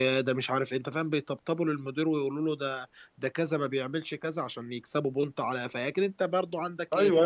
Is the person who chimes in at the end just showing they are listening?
No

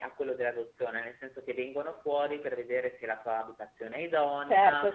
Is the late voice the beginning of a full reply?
Yes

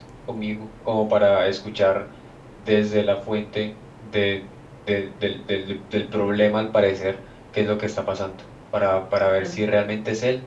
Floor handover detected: No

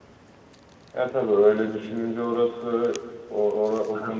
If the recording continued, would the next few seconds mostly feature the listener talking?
Yes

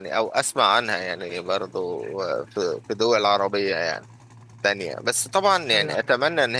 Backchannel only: Yes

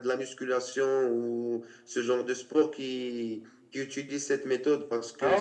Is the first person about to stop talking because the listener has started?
No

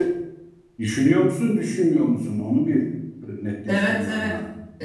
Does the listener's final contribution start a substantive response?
Yes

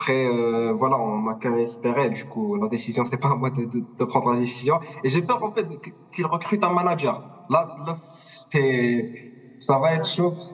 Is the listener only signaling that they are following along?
Yes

